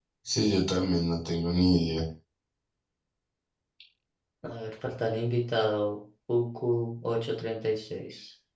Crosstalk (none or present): none